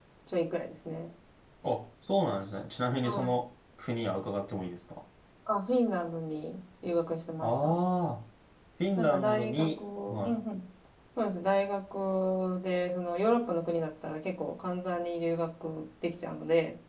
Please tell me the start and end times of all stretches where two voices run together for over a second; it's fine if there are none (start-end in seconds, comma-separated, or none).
9.0-10.4